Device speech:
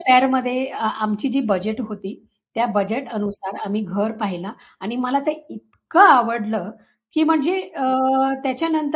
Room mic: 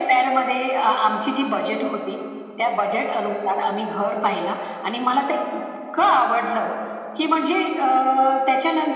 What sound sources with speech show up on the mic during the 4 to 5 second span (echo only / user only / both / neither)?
echo only